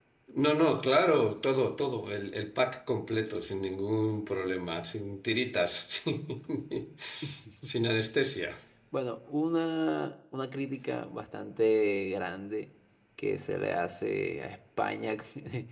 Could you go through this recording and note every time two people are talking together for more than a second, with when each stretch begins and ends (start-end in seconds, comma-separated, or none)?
none